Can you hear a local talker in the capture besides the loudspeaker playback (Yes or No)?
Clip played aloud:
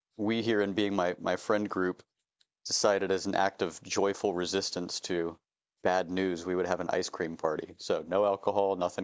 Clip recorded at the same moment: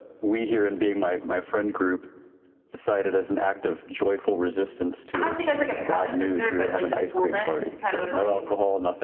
Yes